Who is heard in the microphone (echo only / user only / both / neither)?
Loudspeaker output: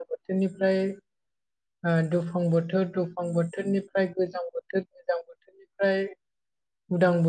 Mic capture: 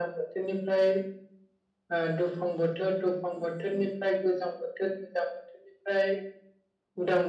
echo only